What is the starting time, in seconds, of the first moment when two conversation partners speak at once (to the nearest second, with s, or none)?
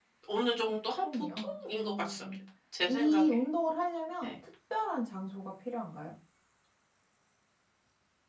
1 s